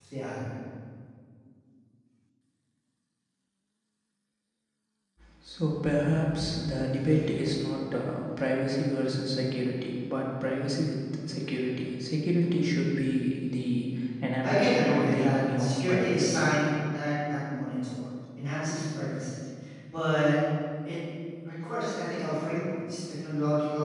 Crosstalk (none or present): present